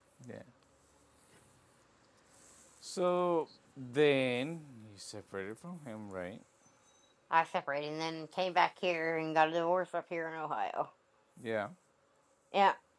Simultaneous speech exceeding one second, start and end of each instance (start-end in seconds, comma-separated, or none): none